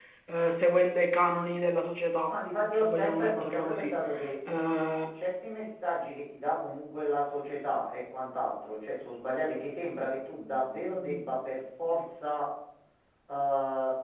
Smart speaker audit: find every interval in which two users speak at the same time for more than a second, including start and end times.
2.8-4.0

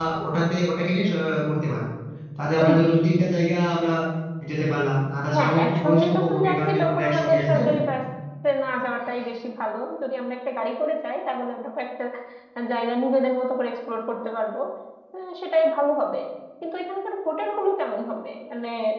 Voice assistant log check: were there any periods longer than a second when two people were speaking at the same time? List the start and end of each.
5.3-7.8

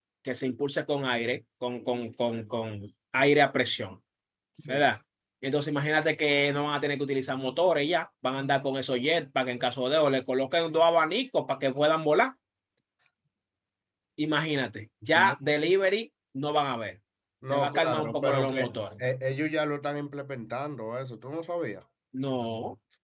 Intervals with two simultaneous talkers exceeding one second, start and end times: 17.5-18.9

